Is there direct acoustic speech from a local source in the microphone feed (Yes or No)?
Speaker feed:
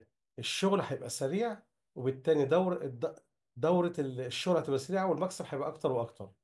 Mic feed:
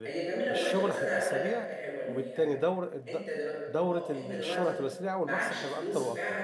Yes